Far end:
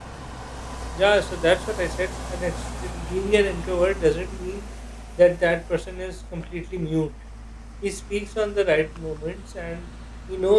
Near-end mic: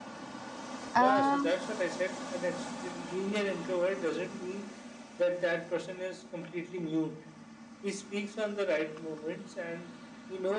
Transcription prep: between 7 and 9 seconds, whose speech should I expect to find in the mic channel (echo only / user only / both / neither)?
echo only